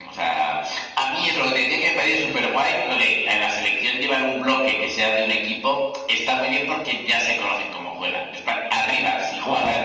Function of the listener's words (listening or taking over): listening